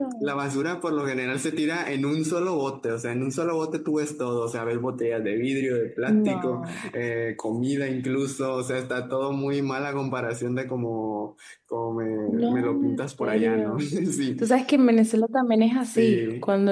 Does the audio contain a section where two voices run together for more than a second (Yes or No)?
Yes